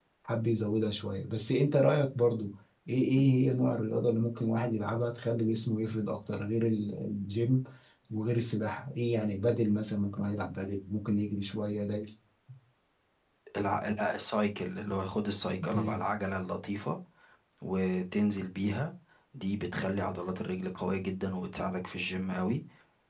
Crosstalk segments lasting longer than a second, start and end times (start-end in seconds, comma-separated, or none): none